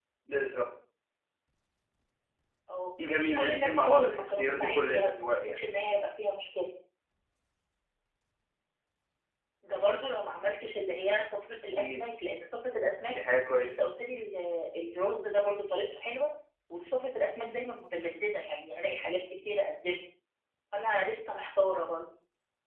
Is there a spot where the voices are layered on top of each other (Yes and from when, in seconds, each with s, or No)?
Yes, from 3.2 s